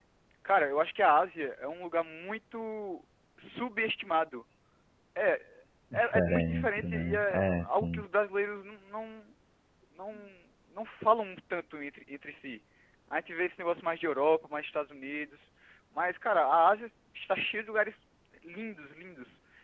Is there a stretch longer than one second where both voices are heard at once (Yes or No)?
Yes